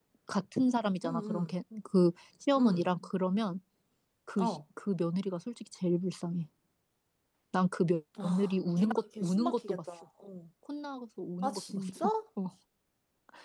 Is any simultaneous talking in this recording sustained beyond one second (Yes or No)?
Yes